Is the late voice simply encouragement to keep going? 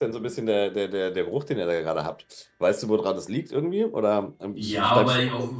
No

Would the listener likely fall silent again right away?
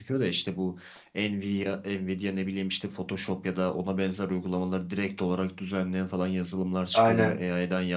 Yes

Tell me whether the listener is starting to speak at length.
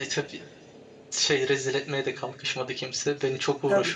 Yes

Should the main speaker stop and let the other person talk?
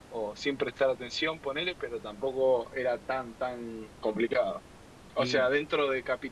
No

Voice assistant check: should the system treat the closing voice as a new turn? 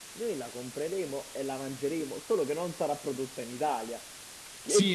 Yes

